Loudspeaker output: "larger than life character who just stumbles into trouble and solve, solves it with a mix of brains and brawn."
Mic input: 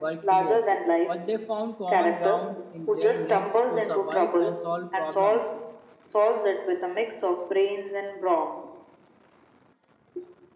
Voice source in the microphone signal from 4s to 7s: both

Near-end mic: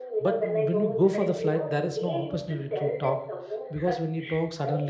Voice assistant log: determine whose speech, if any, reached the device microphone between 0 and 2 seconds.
both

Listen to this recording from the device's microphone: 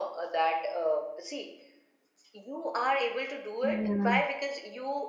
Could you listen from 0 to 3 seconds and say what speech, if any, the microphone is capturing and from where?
echo only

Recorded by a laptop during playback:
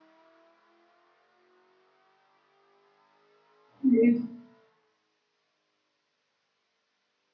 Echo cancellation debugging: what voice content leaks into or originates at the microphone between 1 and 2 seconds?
neither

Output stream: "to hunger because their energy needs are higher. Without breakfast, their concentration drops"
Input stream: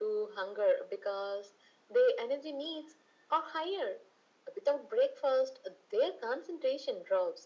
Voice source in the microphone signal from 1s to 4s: echo only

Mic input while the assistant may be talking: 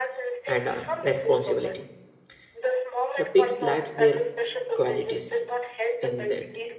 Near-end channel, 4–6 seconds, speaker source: both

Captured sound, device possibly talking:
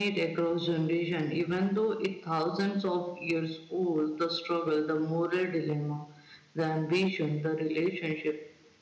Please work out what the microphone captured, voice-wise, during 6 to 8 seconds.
echo only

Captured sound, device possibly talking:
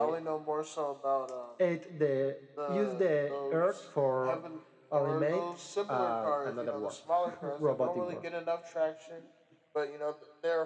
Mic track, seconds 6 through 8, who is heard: echo only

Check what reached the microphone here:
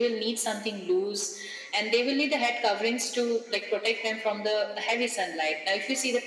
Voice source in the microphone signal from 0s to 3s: echo only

